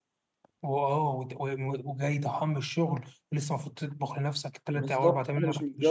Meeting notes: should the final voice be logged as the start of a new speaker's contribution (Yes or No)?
Yes